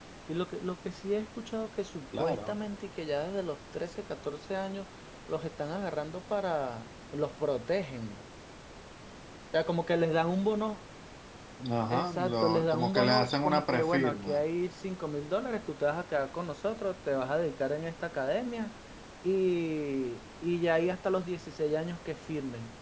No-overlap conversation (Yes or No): No